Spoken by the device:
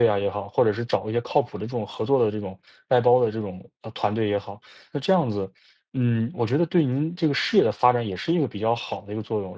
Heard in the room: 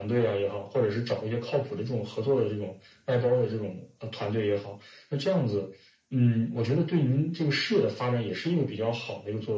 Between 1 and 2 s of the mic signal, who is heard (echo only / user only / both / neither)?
echo only